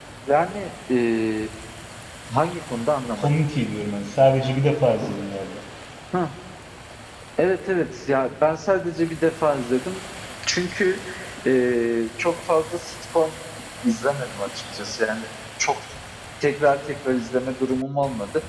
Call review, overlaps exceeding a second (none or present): none